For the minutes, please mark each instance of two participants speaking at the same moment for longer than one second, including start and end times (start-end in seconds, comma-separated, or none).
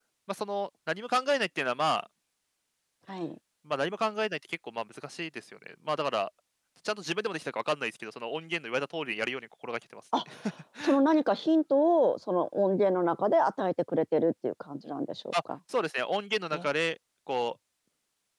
none